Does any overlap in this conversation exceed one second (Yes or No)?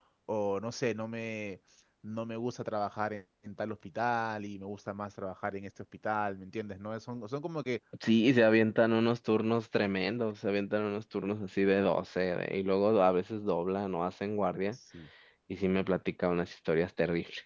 No